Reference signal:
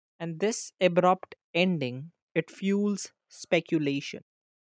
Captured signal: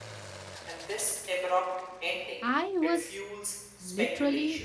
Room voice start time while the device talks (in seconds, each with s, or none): 2.4 s